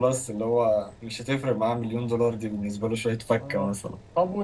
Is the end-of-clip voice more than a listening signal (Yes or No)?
Yes